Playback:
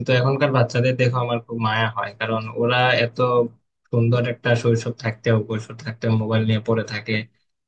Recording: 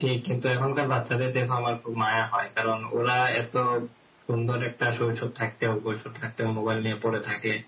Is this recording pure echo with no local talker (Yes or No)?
Yes